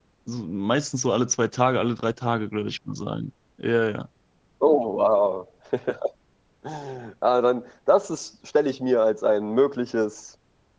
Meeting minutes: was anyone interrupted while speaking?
No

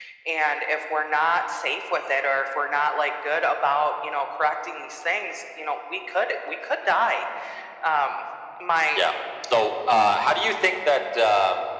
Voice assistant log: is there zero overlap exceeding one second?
Yes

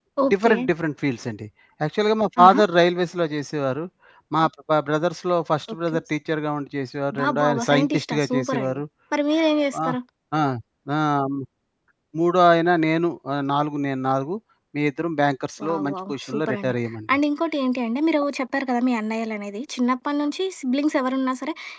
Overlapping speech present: Yes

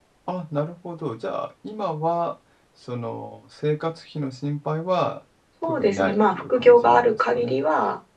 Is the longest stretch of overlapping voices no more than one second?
No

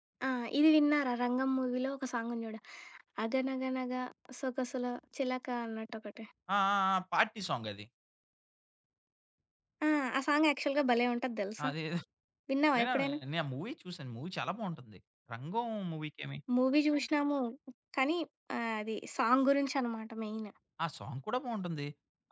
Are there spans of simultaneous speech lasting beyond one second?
No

